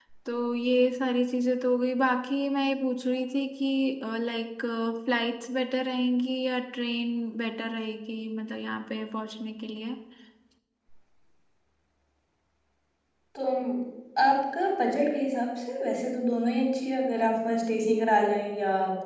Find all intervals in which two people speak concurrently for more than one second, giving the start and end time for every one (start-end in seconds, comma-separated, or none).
none